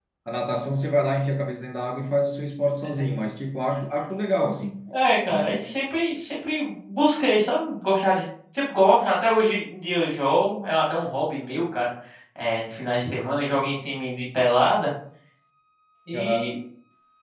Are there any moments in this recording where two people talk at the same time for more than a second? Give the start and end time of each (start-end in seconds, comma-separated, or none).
none